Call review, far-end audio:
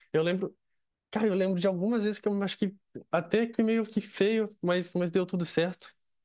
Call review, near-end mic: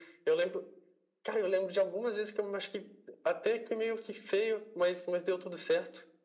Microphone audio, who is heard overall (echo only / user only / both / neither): echo only